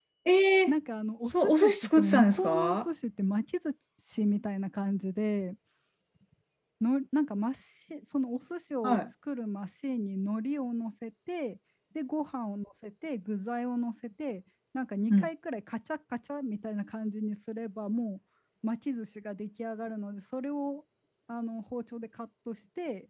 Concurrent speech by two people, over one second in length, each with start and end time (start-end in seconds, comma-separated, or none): 1.4-2.8